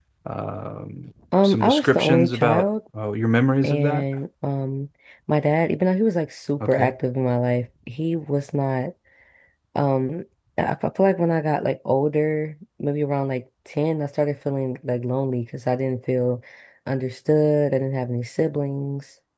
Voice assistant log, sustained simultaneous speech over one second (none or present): present